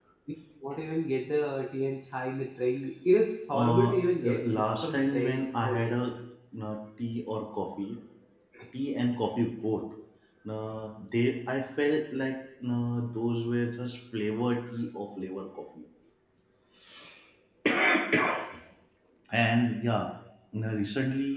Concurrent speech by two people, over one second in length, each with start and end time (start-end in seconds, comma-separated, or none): 3.5-5.9